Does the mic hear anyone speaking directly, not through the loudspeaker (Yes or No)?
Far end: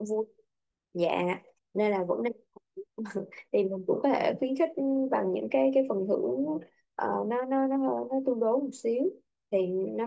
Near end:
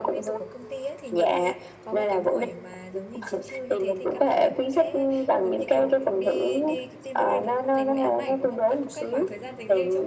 Yes